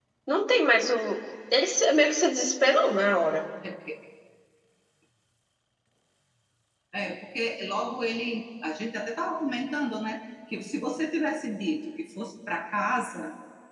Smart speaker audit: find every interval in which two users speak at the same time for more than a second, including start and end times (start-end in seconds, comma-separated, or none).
none